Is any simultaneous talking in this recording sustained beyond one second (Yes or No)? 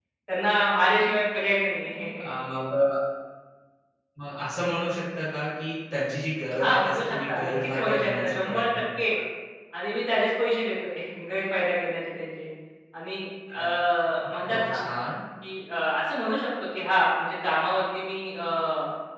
Yes